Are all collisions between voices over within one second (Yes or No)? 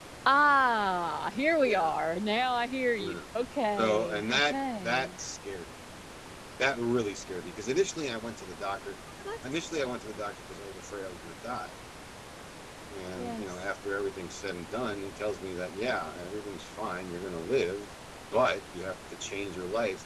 No